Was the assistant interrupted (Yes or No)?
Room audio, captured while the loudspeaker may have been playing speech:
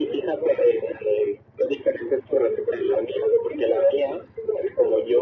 No